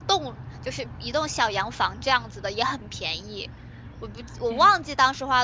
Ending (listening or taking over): listening